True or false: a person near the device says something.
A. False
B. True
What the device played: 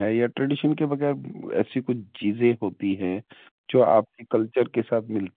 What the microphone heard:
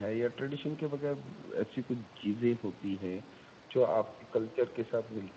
A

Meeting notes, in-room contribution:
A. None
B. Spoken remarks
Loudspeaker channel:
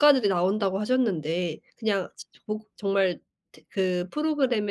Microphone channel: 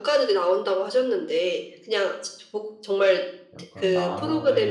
B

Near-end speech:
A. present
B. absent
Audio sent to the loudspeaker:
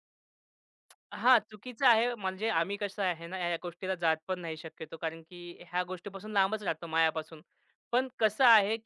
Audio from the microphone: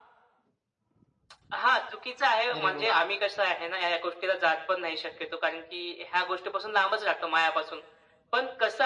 A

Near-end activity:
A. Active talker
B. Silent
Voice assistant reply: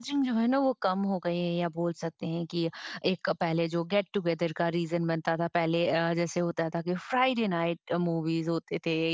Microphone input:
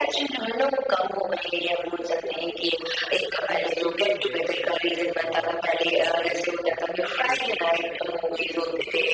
A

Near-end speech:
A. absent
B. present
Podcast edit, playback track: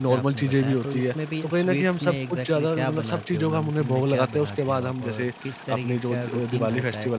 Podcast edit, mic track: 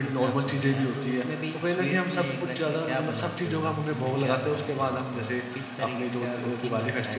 A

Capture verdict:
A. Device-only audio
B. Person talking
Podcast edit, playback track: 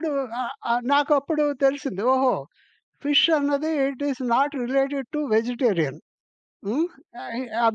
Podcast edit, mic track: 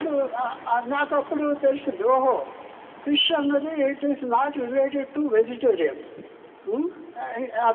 A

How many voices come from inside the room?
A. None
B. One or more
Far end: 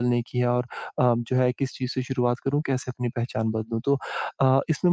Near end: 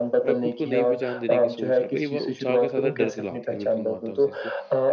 B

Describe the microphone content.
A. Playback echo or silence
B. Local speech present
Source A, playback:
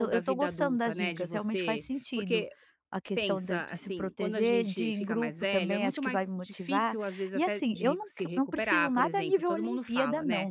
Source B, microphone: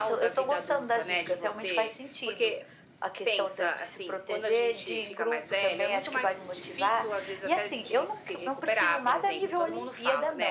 A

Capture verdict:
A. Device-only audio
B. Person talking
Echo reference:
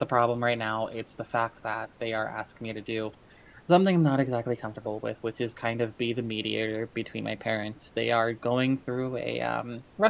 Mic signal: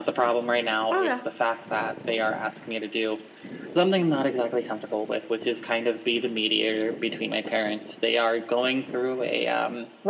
B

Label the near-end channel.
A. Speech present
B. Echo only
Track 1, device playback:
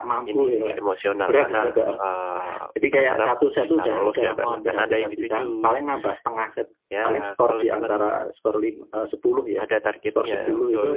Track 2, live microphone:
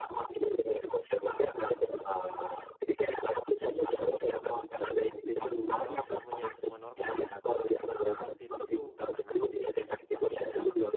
A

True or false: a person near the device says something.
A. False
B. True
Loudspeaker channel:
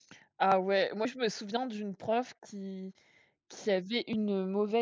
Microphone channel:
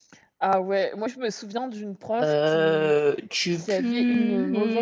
B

